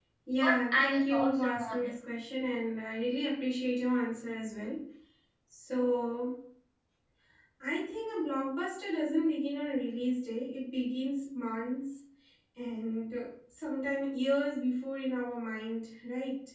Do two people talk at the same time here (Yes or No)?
Yes